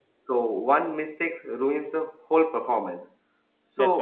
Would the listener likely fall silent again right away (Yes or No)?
Yes